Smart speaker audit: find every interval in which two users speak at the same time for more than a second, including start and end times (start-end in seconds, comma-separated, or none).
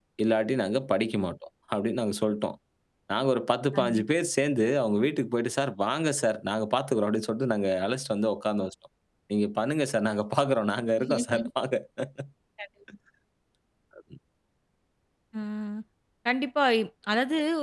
none